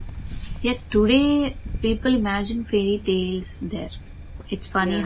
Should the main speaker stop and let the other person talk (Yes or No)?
No